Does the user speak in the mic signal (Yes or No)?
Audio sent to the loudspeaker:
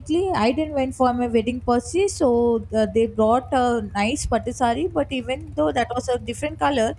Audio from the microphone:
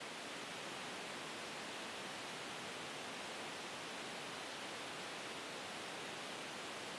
No